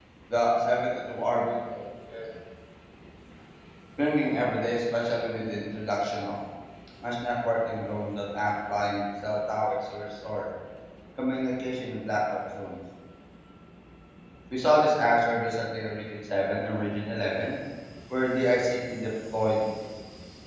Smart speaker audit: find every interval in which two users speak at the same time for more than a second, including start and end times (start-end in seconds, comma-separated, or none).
none